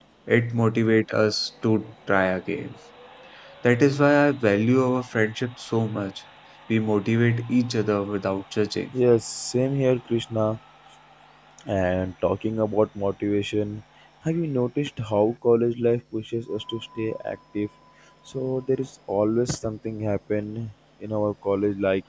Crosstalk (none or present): none